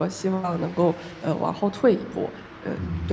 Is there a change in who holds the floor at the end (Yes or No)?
Yes